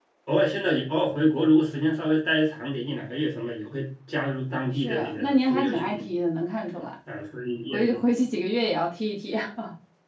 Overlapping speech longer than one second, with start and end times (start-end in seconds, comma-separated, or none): 4.7-6.0